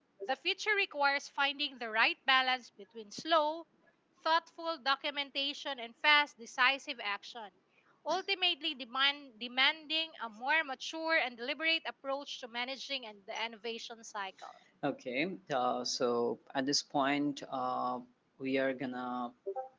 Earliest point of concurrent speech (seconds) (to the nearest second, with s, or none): none